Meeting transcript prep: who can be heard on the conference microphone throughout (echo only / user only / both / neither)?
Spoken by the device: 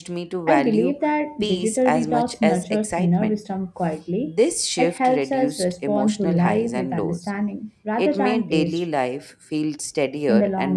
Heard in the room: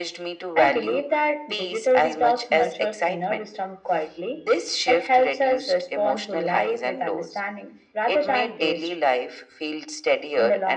echo only